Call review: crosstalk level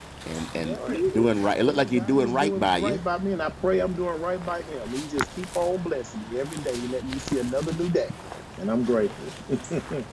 present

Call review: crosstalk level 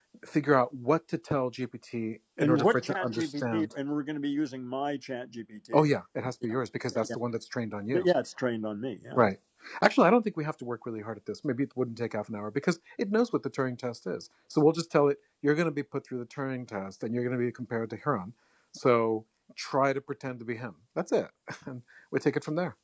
present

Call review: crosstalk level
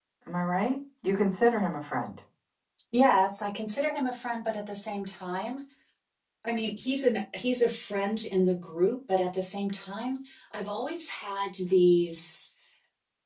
none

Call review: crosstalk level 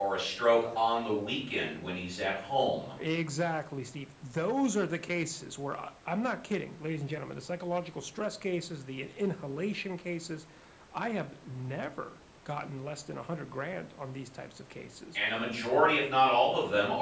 none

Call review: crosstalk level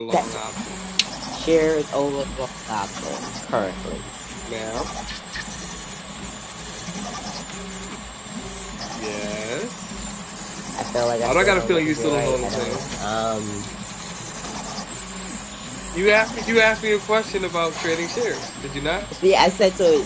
present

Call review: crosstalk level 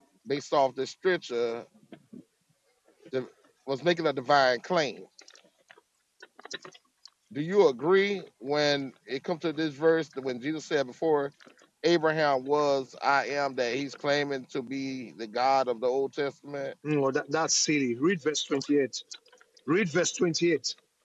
none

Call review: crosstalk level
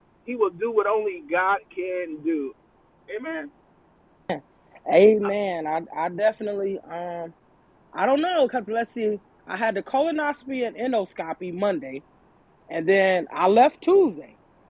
none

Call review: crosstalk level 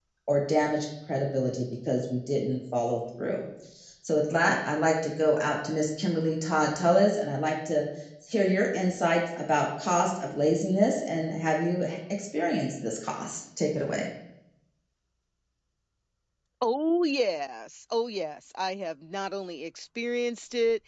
none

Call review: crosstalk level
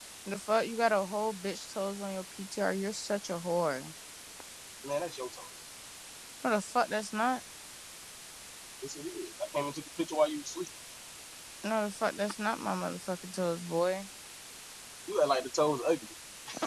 none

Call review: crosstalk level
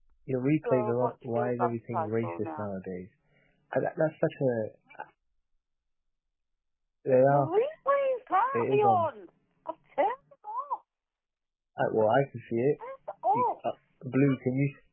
present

